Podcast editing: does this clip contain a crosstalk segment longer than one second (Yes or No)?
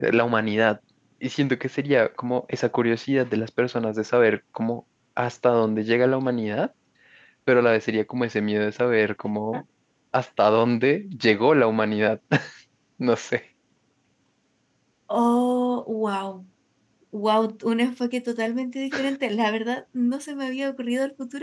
No